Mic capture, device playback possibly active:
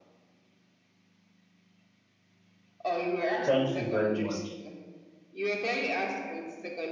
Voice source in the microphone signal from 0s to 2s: neither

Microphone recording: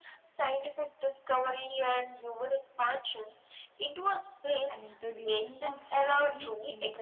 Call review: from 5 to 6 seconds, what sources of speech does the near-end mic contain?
both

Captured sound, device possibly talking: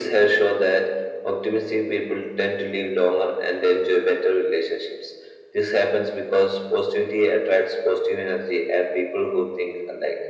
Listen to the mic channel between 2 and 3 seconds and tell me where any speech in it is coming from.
echo only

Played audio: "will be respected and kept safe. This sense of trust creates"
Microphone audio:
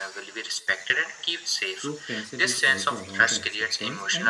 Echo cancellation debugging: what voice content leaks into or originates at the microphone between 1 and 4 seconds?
both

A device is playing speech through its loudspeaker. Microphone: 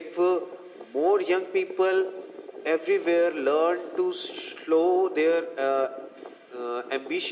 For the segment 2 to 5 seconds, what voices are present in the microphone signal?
echo only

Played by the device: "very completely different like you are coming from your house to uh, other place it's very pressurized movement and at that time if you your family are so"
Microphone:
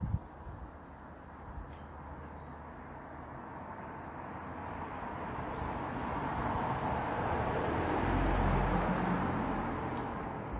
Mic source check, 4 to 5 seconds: neither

